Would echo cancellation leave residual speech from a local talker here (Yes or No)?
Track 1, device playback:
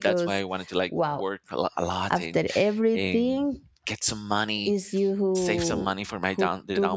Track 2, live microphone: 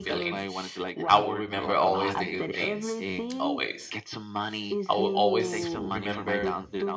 Yes